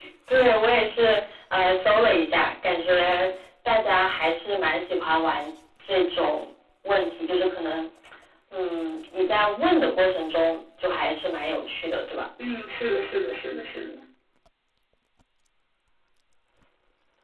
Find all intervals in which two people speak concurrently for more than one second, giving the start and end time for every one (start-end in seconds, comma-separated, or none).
none